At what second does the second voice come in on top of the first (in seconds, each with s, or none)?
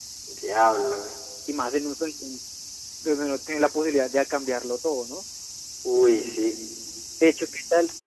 none